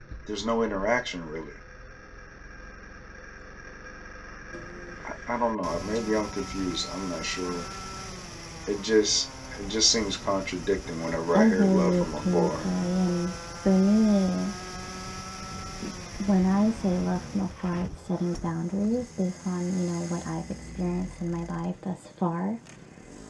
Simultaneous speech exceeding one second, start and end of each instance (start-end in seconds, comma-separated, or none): 11.3-12.7